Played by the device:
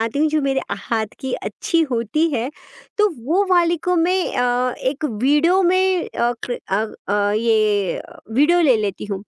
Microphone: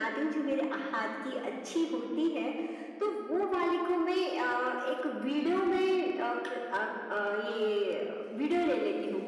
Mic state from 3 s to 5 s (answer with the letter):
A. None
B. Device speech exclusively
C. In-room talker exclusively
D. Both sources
B